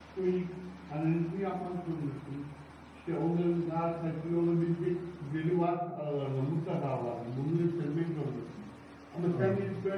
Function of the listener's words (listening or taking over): listening